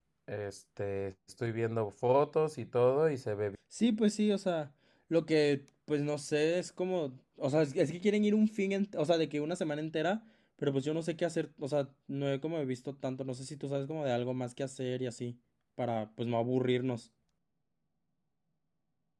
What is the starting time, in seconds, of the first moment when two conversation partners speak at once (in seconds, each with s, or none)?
none